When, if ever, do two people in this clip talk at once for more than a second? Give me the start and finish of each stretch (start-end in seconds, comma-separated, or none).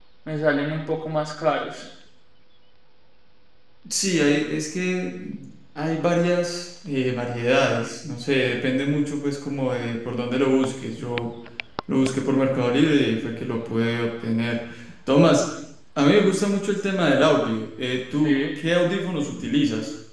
none